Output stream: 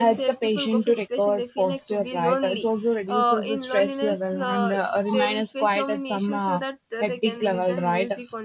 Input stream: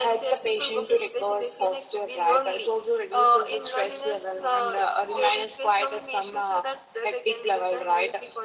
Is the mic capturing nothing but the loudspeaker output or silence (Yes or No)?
Yes